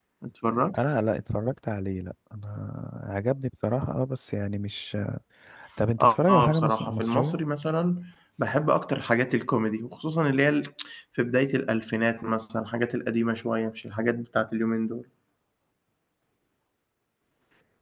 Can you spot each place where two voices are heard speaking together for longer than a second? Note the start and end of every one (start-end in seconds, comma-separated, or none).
6.0-7.4